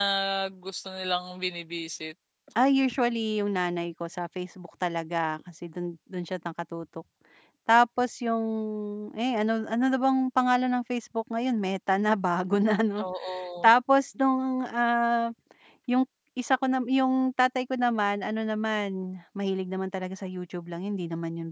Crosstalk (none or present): none